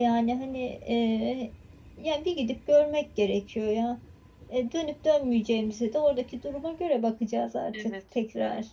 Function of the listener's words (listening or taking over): taking over